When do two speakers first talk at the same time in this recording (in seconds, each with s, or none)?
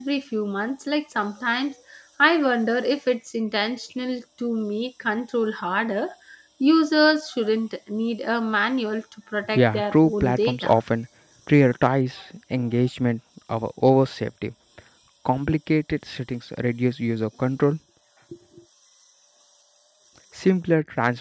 9.6 s